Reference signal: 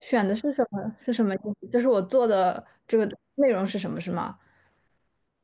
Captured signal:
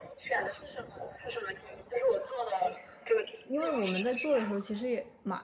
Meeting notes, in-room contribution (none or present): present